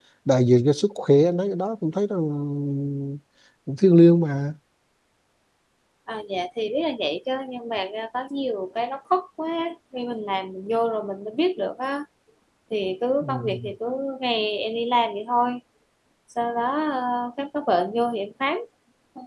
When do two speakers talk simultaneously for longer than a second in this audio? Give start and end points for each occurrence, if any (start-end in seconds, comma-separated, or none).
none